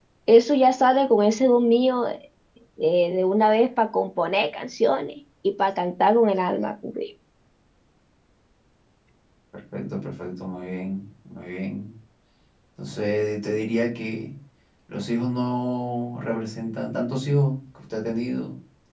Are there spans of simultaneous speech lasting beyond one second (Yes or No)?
No